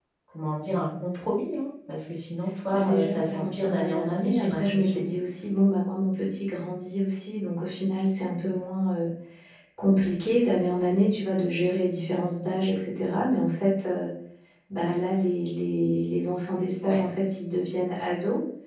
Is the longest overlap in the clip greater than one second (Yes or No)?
Yes